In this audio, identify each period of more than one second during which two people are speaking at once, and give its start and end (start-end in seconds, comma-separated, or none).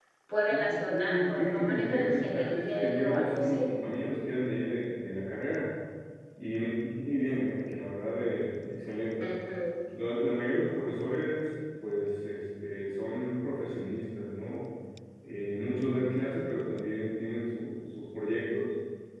0.5-3.7